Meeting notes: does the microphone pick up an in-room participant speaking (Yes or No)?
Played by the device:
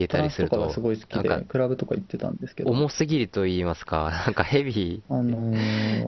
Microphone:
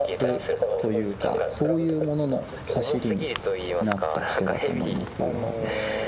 Yes